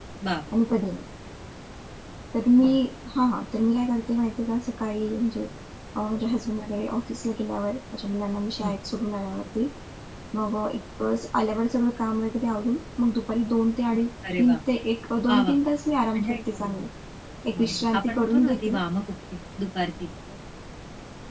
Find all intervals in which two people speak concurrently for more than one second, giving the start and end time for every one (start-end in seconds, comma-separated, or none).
17.5-18.8